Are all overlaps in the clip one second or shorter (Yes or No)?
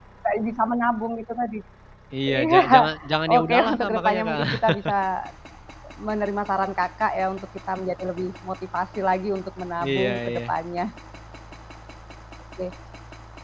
No